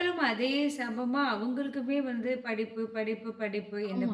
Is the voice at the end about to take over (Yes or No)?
No